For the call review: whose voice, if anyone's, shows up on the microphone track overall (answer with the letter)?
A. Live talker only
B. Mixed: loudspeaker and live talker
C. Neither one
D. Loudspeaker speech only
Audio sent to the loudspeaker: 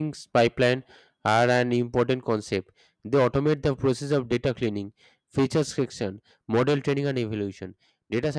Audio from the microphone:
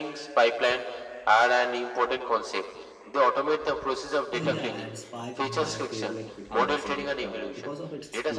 B